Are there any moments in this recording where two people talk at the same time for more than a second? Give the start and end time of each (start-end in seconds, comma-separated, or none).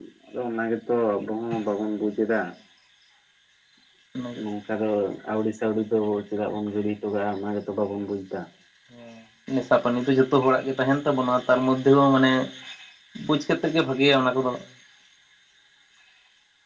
none